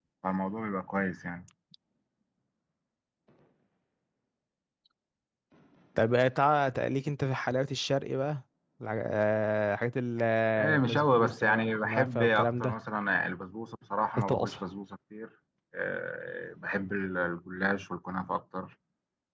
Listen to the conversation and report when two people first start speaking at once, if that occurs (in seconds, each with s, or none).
10.6 s